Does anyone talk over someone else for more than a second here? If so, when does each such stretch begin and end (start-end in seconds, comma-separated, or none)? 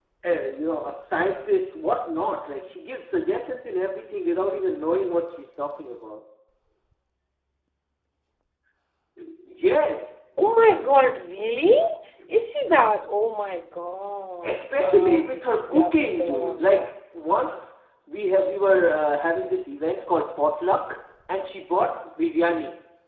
14.4-16.8